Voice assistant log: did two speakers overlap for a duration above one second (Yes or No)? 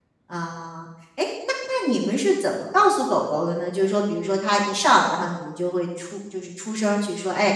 No